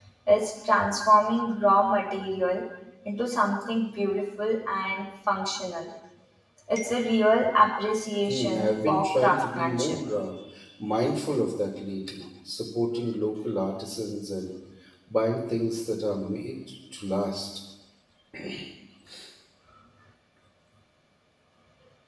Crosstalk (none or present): present